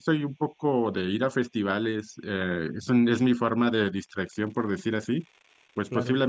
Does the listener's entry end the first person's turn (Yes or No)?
No